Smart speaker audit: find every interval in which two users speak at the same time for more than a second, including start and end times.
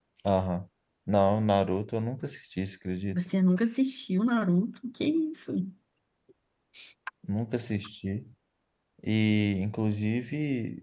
none

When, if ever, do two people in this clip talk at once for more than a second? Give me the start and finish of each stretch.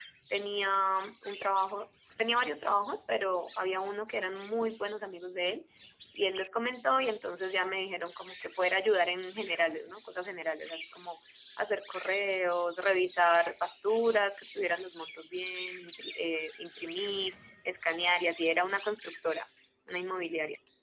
none

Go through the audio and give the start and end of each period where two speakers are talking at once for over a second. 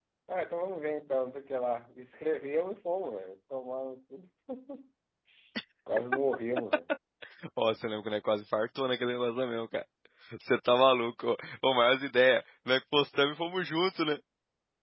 none

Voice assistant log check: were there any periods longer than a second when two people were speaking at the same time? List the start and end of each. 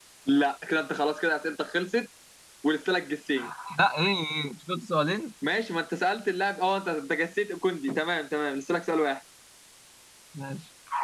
none

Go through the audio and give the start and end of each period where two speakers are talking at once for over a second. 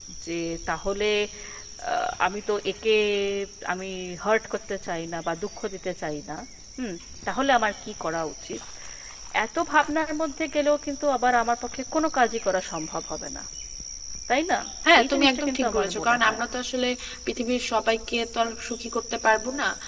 15.0-16.4

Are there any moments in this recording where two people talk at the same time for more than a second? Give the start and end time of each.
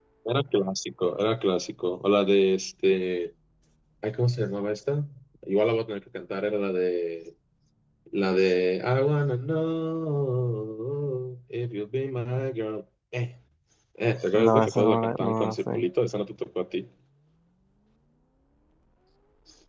14.3-15.8

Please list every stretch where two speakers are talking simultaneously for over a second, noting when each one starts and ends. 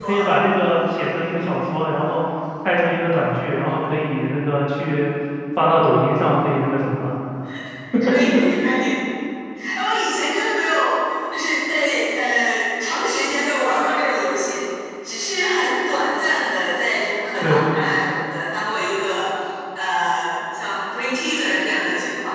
none

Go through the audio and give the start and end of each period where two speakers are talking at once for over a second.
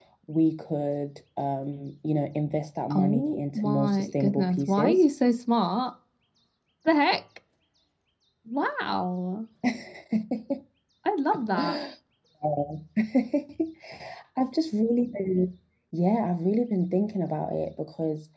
2.9-5.0

